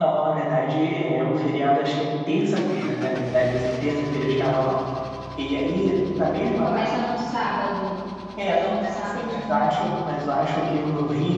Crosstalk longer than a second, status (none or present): present